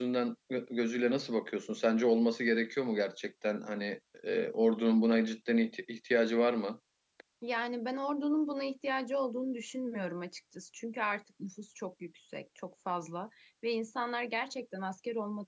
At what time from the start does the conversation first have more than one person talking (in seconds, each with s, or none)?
none